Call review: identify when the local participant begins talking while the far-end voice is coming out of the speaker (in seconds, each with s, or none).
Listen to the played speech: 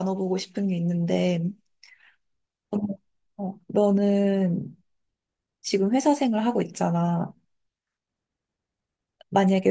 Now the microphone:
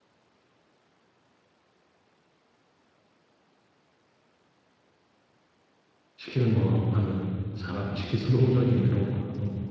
6.2 s